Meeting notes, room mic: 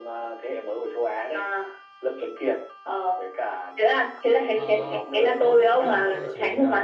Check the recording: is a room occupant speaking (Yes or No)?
Yes